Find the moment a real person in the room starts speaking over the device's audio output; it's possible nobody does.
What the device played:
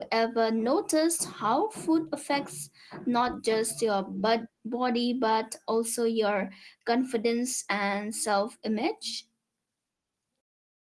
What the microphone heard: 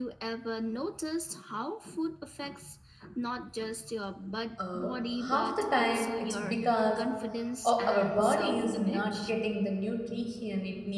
4.6 s

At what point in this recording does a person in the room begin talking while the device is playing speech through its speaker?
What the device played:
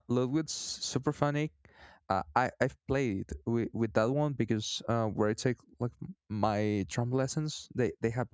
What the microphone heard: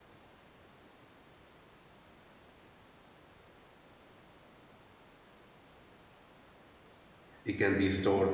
7.4 s

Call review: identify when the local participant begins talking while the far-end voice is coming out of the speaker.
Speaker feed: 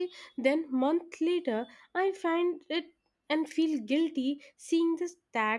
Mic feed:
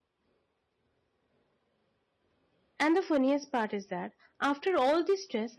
2.8 s

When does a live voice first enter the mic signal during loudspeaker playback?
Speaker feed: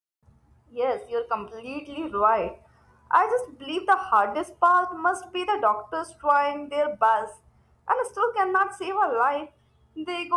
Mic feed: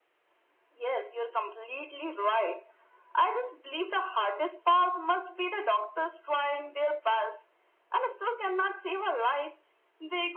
none

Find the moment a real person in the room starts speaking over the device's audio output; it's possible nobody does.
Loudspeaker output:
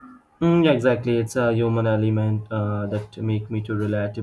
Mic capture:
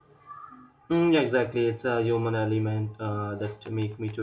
none

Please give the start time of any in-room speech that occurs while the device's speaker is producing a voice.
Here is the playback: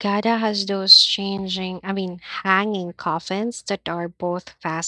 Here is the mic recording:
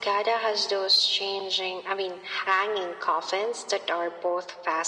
none

